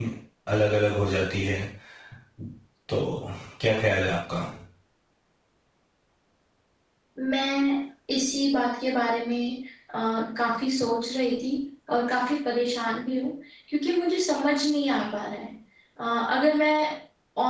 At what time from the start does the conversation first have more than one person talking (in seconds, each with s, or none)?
none